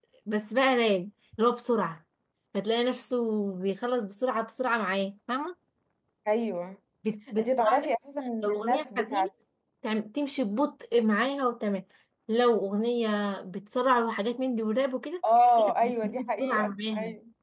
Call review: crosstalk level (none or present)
present